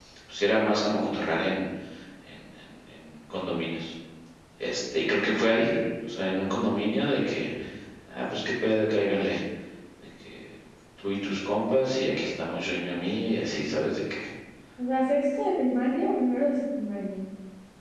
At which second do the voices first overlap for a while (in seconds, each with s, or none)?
none